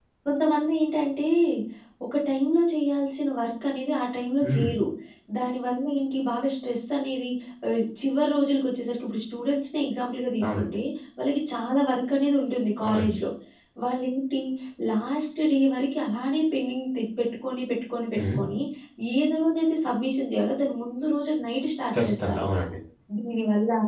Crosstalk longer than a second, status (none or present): none